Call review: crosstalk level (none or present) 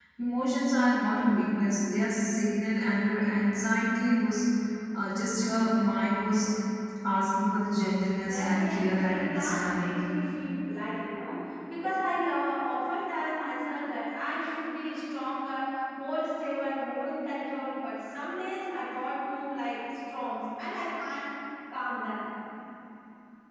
present